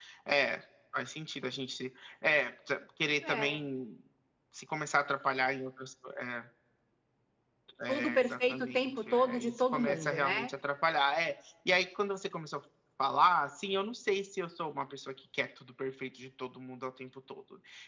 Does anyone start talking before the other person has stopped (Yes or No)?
Yes